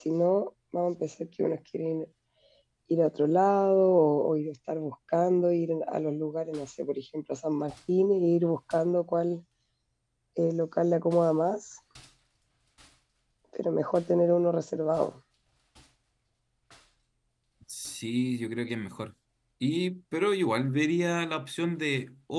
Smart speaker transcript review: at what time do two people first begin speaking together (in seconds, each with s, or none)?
none